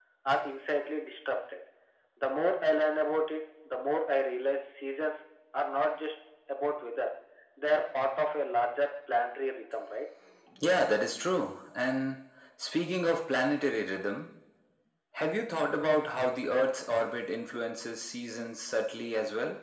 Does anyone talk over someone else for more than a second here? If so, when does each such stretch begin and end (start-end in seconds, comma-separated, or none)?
none